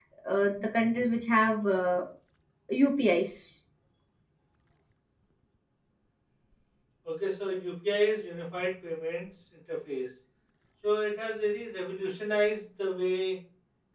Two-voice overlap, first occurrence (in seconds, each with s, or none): none